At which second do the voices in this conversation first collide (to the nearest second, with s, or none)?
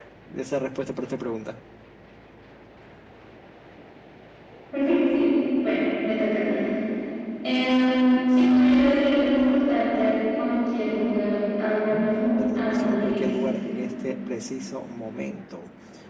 12 s